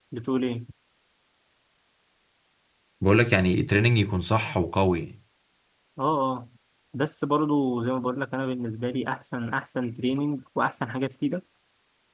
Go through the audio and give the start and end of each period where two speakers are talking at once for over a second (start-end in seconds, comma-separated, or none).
none